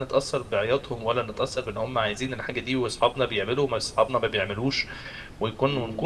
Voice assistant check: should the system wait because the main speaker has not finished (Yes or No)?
Yes